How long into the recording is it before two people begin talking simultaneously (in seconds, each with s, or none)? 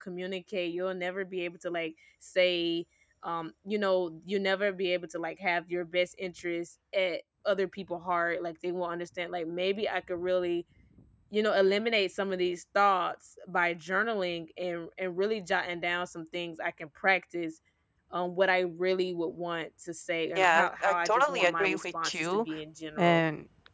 20.4 s